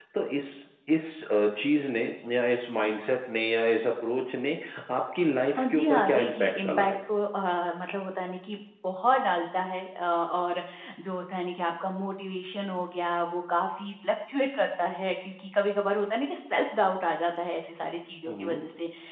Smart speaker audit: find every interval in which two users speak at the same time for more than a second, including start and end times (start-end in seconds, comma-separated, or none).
5.6-6.9